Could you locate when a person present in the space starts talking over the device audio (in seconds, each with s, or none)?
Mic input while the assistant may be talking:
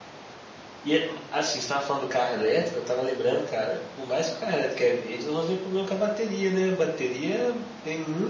0.8 s